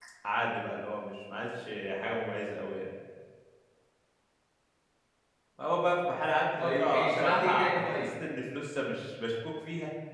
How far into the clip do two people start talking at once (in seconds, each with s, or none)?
6.6 s